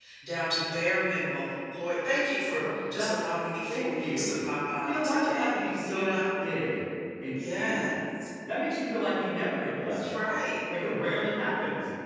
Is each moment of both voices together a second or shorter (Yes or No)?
No